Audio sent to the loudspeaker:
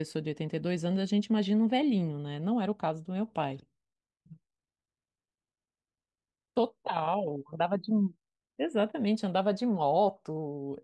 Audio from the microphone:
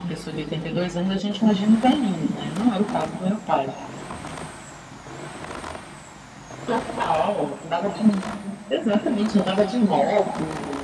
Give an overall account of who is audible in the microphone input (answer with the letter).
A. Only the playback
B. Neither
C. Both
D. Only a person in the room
A